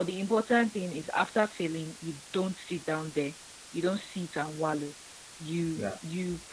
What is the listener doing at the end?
listening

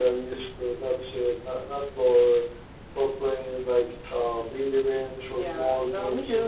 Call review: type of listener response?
taking over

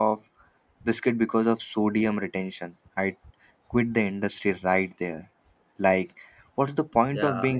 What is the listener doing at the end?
listening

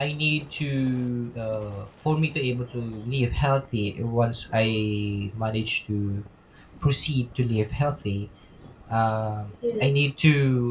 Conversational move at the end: listening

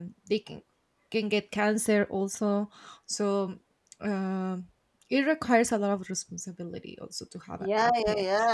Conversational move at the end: taking over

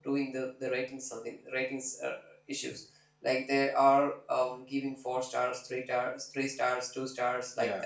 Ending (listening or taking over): listening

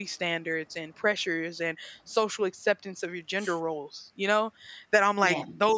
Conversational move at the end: listening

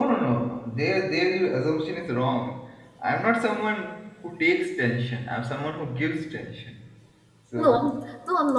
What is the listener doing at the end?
taking over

